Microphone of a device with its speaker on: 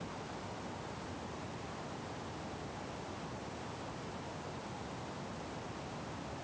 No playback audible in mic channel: Yes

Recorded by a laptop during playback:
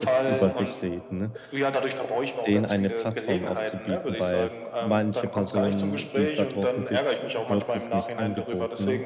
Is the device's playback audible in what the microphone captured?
Yes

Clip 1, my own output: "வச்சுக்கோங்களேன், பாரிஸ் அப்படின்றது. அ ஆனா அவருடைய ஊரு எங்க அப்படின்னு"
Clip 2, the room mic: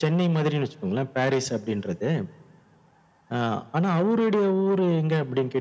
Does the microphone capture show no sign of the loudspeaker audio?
No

